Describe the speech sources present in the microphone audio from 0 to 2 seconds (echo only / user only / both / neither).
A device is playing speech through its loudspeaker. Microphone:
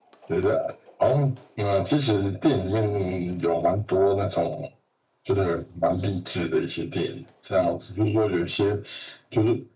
echo only